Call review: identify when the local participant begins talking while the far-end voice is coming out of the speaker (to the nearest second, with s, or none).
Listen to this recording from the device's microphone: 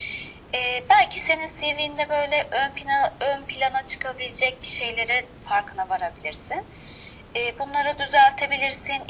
none